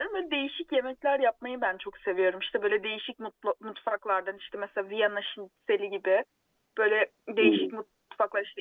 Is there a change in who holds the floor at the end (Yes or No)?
No